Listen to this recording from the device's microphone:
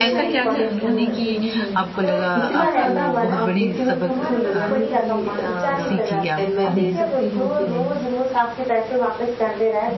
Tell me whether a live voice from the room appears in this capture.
Yes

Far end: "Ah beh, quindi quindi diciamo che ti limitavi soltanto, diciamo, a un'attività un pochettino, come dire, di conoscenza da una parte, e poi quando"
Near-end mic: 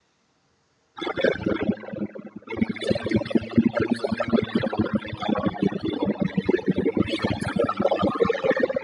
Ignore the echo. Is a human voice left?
No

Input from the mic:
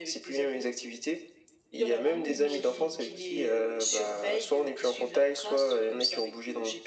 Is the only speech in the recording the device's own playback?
No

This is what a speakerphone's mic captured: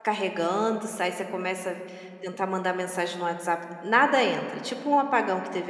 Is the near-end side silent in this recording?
No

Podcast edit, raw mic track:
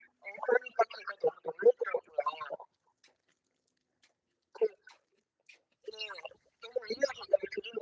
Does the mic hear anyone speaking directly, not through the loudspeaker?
No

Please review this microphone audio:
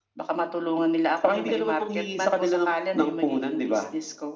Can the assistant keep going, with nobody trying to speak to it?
Yes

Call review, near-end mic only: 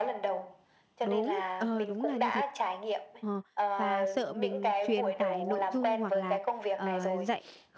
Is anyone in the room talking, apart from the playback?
Yes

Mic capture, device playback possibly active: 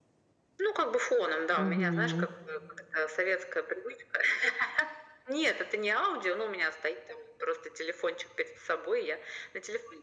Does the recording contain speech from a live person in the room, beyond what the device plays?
Yes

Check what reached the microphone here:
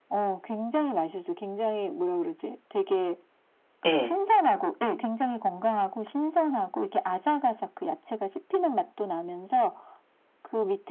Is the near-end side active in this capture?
Yes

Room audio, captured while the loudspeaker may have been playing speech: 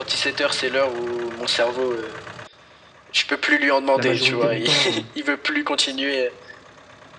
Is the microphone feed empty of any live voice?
No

